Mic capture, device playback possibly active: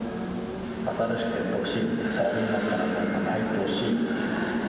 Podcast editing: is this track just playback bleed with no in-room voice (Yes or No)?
Yes